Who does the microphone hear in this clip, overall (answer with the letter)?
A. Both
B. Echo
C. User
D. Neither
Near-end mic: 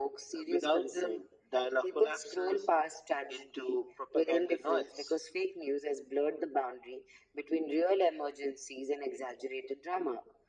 B